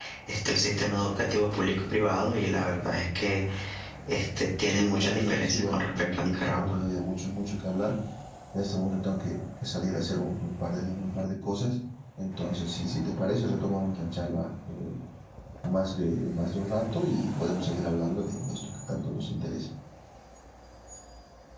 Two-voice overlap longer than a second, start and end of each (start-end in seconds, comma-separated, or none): 4.7-6.8